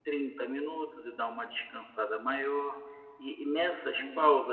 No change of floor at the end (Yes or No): Yes